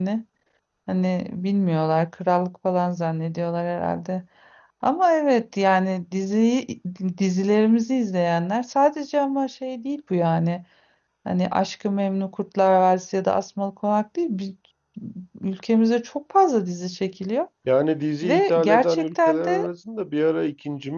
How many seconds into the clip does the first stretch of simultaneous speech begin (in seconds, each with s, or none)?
18.2 s